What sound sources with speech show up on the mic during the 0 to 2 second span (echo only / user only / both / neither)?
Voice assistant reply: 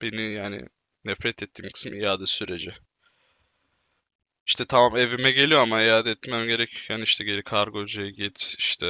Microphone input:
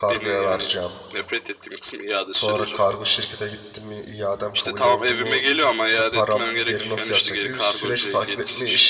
both